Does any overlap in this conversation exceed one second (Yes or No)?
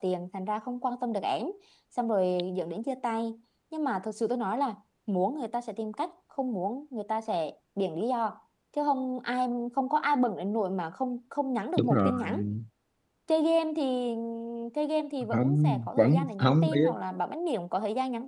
Yes